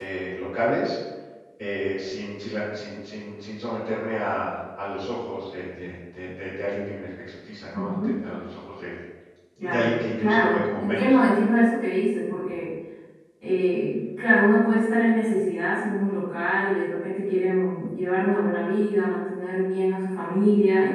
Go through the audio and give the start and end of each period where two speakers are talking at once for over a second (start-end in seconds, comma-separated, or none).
9.6-11.2